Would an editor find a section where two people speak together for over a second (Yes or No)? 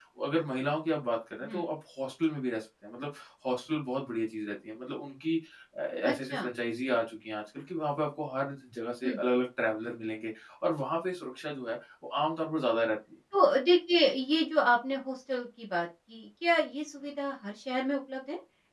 No